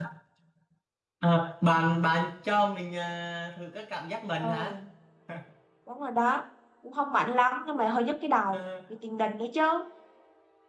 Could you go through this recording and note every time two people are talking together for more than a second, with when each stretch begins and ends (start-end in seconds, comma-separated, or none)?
none